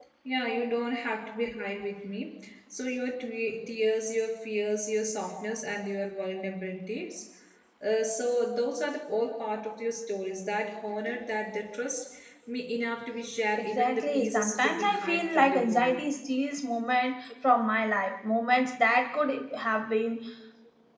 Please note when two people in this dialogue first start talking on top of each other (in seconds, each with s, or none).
13.6 s